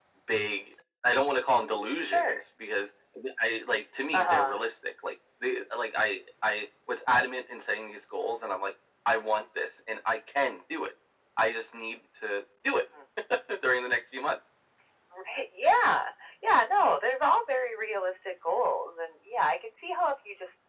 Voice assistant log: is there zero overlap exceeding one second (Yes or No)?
Yes